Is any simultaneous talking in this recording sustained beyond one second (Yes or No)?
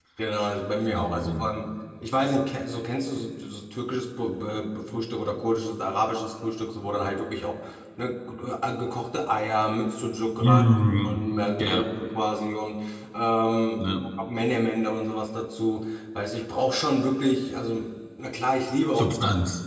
No